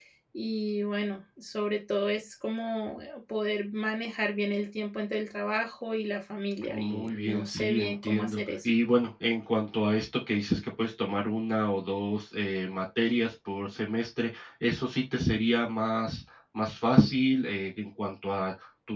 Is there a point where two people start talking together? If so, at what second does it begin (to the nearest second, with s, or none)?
7 s